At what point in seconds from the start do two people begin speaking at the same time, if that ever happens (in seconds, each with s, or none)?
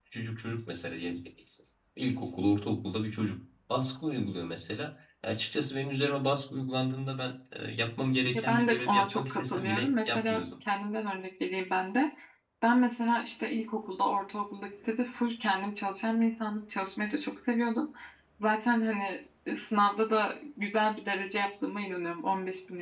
8.3 s